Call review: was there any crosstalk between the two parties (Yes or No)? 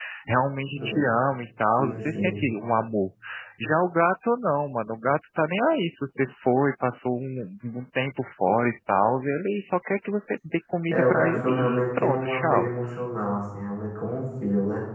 Yes